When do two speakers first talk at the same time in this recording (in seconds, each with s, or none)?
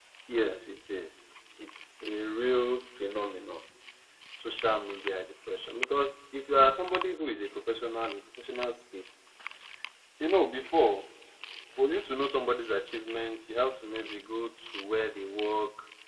none